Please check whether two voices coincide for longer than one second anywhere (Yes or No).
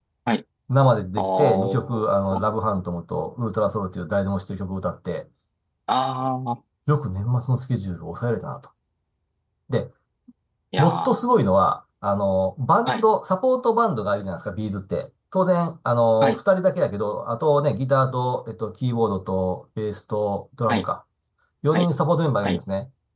Yes